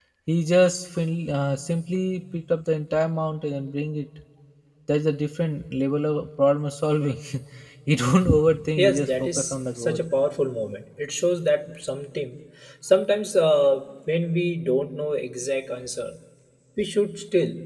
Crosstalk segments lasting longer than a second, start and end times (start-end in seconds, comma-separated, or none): 8.8-10.0